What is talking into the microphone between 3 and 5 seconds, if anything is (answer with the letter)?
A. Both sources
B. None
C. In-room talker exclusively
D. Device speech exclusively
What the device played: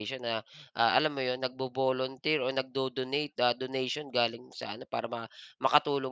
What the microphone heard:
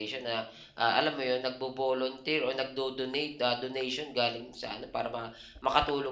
D